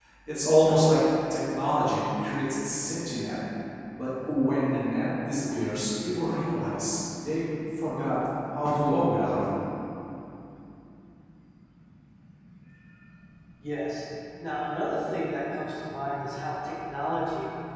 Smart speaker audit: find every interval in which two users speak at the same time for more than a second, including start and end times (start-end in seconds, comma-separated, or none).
none